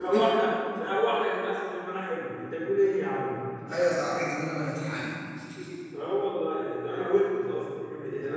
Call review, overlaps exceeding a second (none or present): none